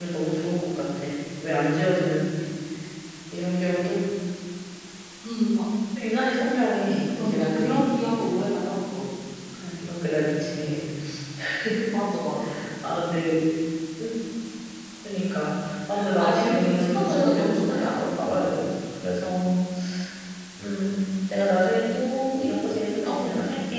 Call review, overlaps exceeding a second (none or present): present